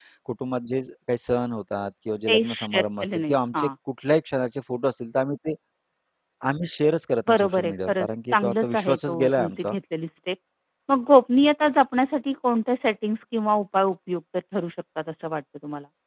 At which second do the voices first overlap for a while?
2 s

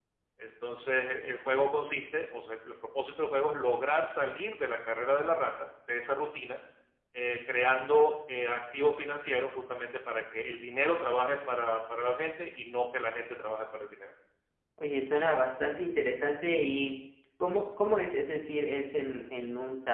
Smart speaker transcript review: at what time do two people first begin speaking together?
none

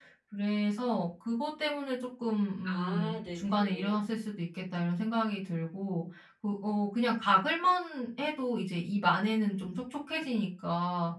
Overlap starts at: 3 s

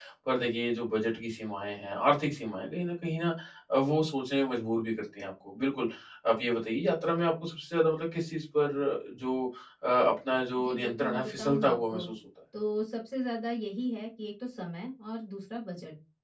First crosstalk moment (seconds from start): 11 s

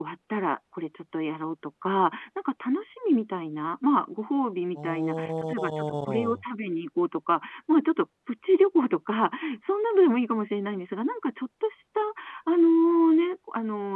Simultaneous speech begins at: 5 s

